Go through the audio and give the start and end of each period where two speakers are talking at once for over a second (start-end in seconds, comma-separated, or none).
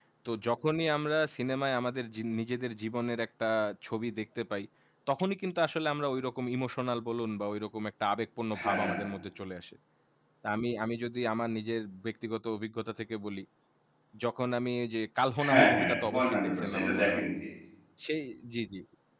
15.5-17.2